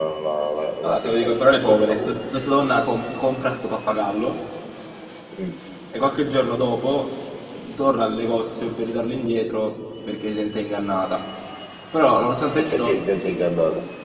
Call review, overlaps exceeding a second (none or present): present